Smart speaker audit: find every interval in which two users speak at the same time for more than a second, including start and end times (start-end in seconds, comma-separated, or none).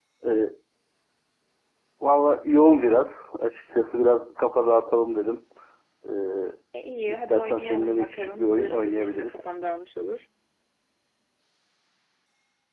7.1-9.4